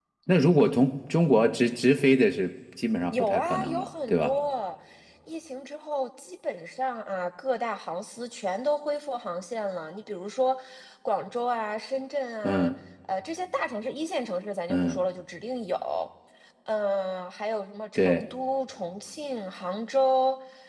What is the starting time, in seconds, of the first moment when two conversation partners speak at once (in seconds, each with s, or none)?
3.1 s